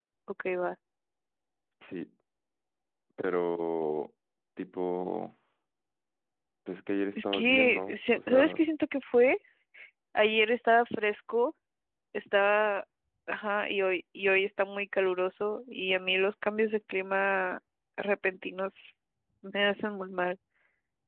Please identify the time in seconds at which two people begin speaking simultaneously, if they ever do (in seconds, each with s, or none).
7.2 s